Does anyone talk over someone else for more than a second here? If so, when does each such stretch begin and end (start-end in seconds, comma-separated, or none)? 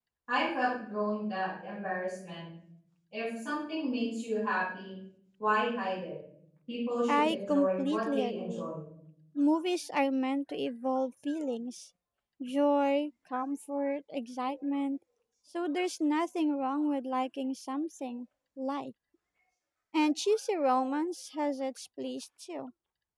7.1-8.7